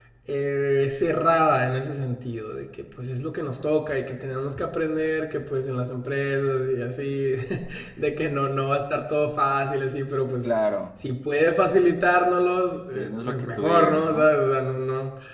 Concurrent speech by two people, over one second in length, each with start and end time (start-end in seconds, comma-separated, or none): 12.9-14.3